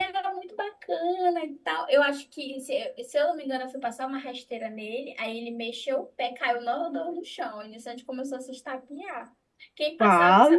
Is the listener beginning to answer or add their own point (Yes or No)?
No